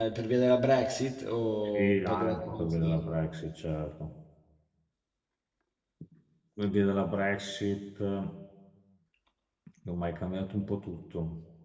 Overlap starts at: 1.6 s

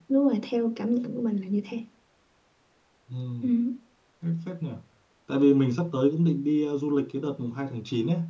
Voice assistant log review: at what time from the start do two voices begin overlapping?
none

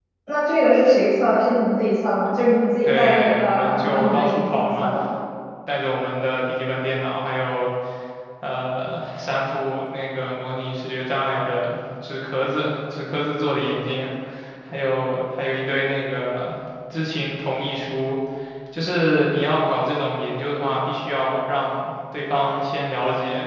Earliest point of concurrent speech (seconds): 2.8 s

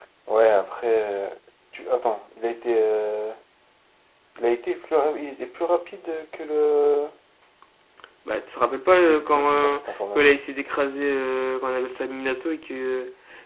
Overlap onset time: 9.0 s

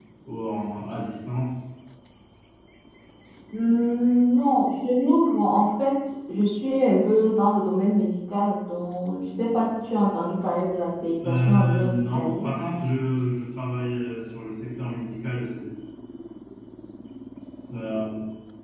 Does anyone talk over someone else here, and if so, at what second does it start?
11.2 s

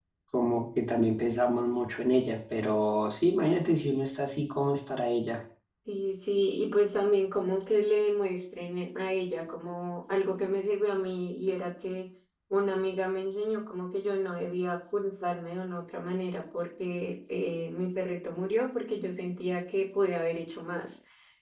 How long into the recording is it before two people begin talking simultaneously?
none

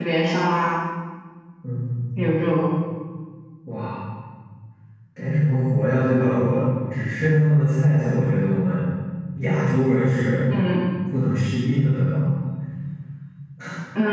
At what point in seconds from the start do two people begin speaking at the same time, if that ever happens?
none

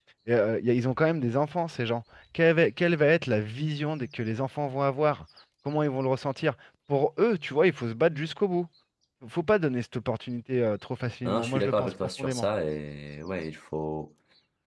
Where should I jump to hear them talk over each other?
11.2 s

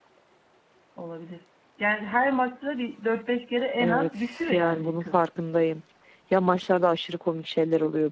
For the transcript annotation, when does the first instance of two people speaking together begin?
3.8 s

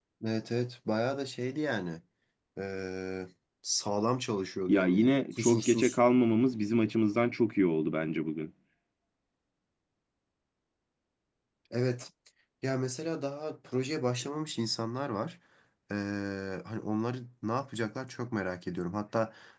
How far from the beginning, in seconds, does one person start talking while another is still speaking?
4.7 s

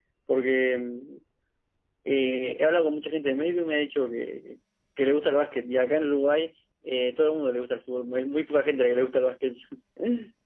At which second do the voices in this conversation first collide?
none

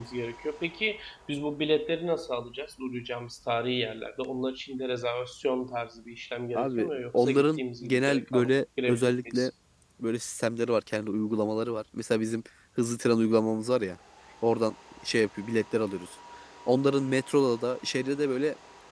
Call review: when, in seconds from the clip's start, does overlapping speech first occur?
6.6 s

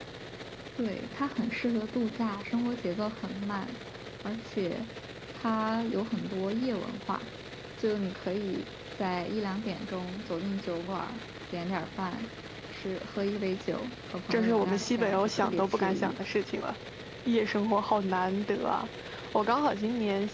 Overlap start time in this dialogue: 14.3 s

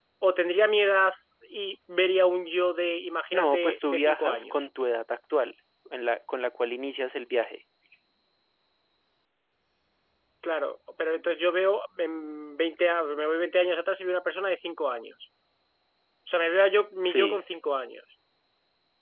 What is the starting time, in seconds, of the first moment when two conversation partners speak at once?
3.3 s

